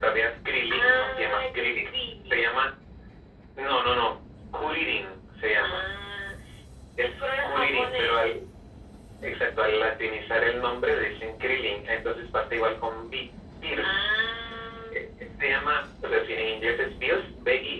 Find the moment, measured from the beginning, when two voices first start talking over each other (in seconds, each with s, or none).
0.7 s